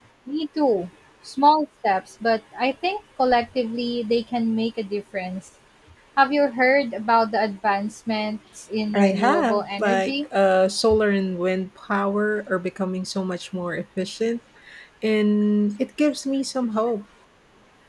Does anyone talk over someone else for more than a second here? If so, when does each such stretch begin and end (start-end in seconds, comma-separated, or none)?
8.9-10.3